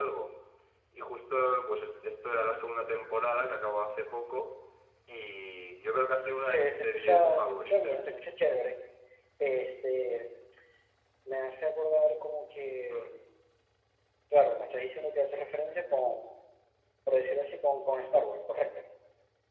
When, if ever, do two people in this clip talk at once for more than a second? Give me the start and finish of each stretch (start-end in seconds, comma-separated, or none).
6.5-8.2